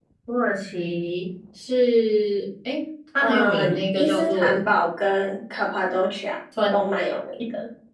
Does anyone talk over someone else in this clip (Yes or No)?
Yes